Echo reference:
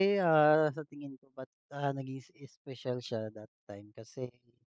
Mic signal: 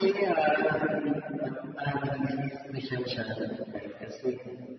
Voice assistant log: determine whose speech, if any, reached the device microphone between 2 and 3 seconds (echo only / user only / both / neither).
echo only